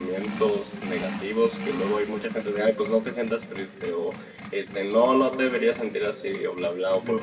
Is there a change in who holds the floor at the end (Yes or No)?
No